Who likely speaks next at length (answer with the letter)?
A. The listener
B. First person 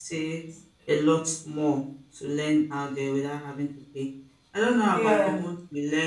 B